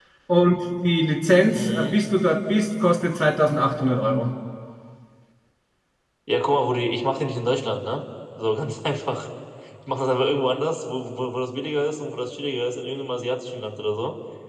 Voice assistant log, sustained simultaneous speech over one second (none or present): none